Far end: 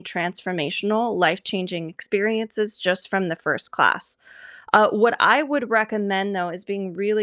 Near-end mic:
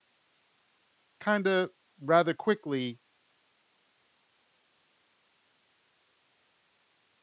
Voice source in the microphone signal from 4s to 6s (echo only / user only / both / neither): neither